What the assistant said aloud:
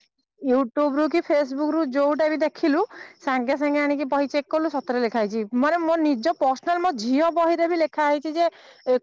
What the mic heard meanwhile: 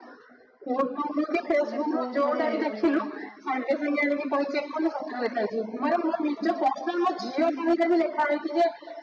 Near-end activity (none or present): present